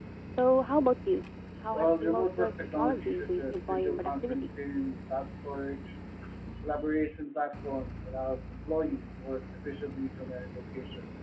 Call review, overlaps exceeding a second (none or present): present